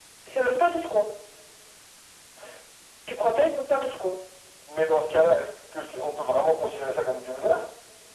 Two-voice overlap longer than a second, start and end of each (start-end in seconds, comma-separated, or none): none